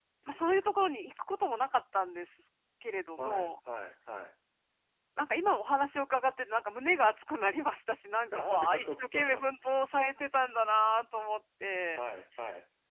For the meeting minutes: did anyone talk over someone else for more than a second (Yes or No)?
Yes